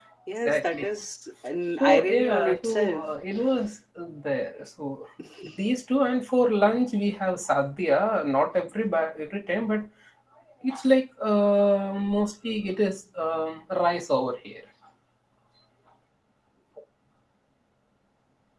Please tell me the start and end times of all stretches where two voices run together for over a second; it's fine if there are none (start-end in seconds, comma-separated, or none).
1.8-3.0